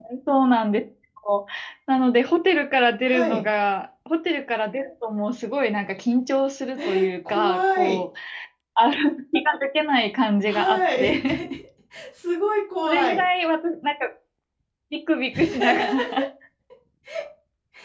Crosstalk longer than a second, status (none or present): present